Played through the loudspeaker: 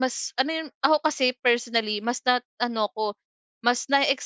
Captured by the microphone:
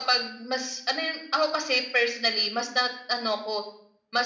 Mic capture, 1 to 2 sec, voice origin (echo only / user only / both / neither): echo only